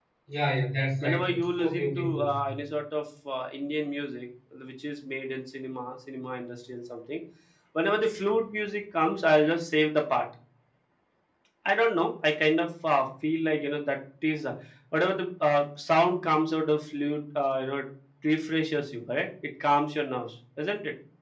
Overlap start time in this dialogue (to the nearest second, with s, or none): 1 s